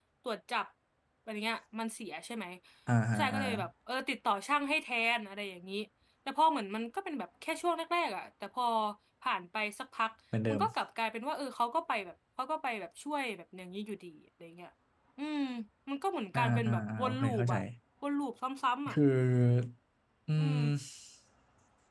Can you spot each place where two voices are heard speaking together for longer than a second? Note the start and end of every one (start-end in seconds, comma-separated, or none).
16.3-17.5